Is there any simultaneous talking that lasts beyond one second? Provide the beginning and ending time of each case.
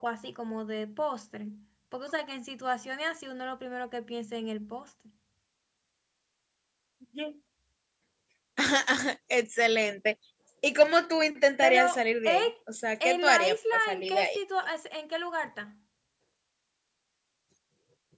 13.0-14.4

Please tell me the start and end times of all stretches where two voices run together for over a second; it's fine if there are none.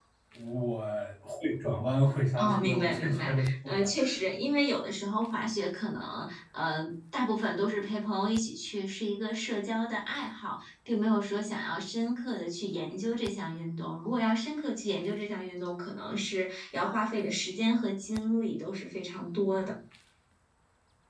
2.4-3.9

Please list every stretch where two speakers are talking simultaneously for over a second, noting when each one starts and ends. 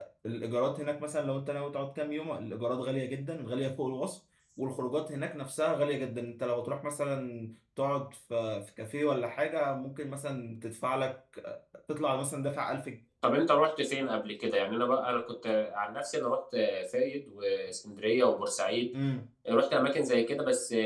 none

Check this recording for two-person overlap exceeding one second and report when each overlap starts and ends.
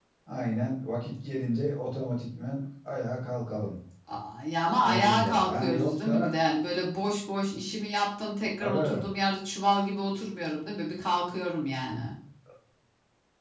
4.8-6.3

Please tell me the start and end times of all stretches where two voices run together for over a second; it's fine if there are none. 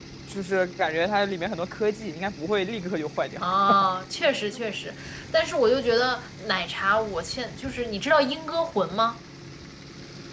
none

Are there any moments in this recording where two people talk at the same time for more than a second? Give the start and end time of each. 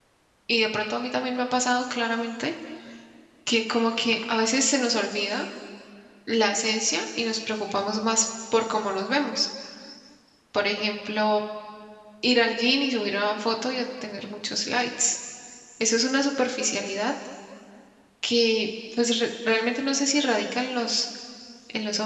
none

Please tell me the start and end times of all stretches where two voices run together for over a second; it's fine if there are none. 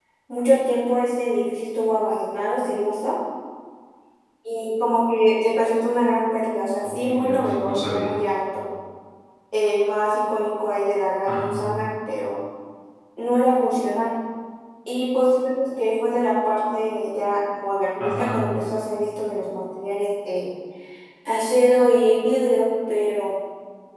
6.8-8.1

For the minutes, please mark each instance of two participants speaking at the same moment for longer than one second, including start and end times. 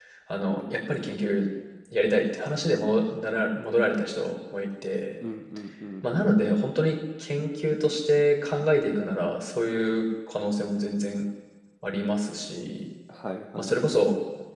none

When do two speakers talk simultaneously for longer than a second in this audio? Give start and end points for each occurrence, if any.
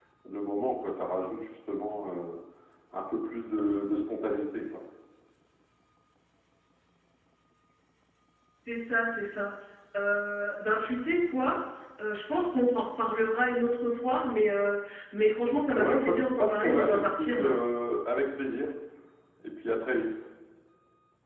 15.8-17.6

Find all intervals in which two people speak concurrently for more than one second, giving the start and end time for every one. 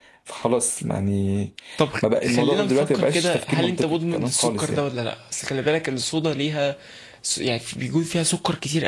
2.3-4.8

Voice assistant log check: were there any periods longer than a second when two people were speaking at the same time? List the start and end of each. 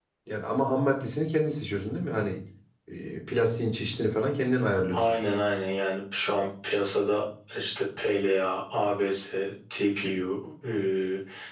none

